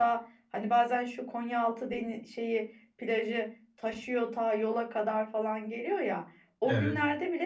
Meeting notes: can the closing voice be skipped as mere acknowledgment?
Yes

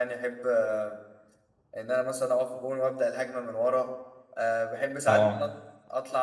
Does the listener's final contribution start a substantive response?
No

